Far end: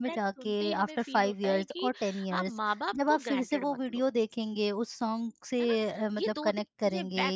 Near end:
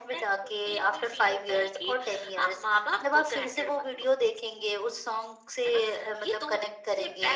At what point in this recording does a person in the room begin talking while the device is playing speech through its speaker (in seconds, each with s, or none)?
none